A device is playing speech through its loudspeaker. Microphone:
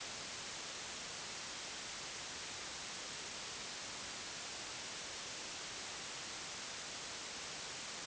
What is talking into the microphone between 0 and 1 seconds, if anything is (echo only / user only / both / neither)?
neither